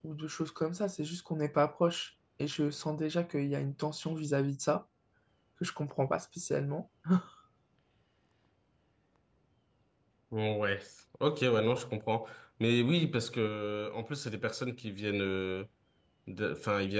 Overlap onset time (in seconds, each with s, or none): none